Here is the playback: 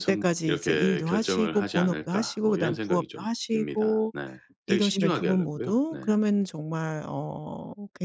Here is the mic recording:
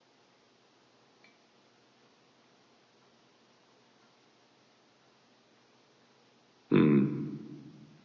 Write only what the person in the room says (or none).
음.